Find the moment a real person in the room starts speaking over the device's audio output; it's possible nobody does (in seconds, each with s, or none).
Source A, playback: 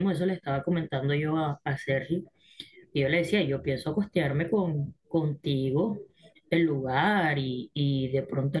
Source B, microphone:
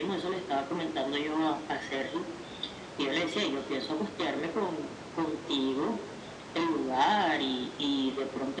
none